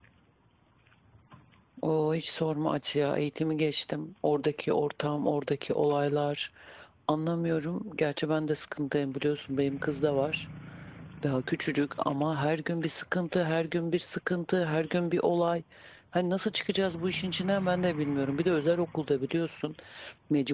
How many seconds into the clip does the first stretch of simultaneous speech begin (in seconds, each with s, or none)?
none